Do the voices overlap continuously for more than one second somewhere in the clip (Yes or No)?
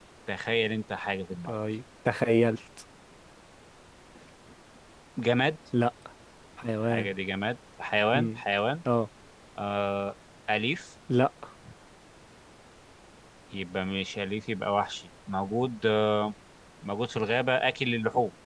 No